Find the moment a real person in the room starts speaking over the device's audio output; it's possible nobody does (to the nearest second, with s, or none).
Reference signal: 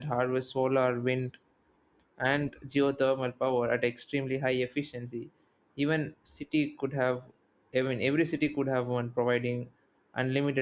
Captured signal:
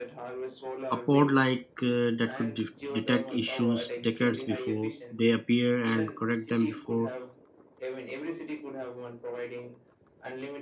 1 s